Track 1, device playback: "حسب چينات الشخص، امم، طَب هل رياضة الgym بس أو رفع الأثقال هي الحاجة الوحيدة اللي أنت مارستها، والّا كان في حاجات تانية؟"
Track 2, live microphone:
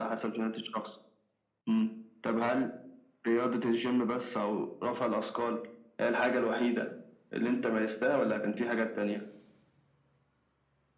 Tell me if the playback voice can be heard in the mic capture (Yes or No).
Yes